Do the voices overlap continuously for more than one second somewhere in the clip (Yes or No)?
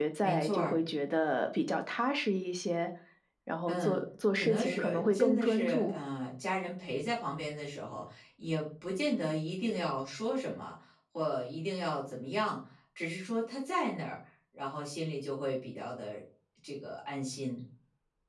Yes